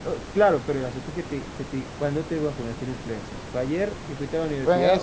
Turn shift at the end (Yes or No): Yes